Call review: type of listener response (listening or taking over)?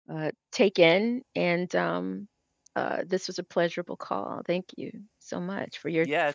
taking over